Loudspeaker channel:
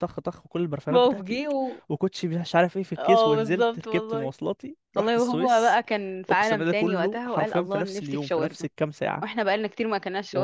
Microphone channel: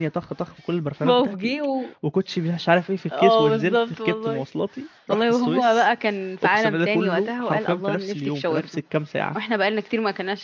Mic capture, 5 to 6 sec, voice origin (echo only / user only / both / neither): echo only